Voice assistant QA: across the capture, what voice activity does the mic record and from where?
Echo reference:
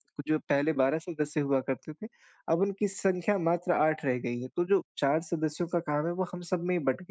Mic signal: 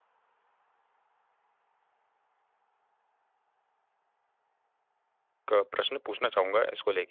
user only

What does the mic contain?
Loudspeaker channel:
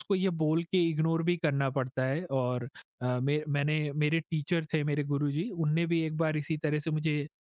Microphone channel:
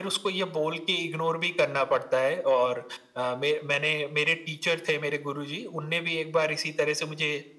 echo only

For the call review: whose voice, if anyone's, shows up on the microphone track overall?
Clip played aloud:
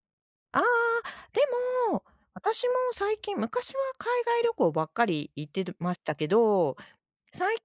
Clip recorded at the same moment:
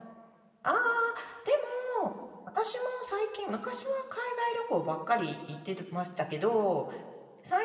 echo only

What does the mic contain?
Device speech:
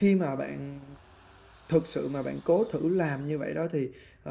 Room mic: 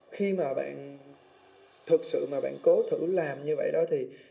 echo only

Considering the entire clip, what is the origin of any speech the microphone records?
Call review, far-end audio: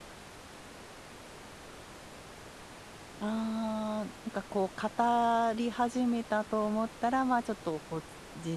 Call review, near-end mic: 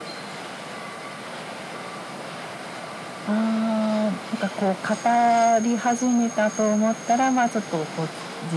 echo only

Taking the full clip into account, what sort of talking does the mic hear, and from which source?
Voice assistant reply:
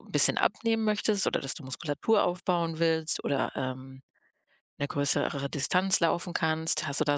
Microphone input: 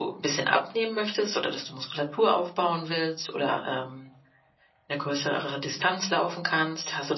echo only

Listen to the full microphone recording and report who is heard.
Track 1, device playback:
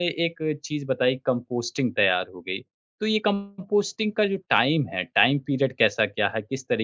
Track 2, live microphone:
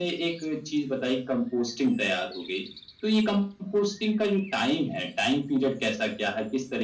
echo only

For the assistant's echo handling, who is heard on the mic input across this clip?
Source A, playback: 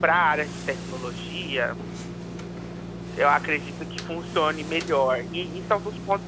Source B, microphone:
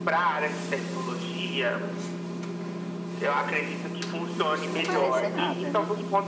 both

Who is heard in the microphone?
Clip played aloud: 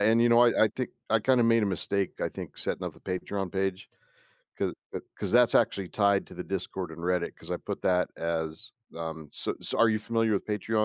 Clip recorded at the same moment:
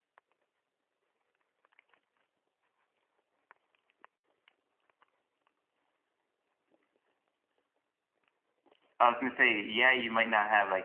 user only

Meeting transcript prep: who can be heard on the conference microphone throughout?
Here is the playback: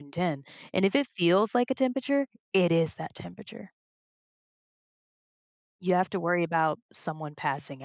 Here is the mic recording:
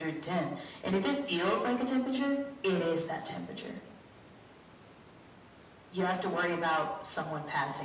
echo only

